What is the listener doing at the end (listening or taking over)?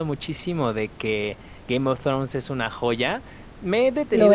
listening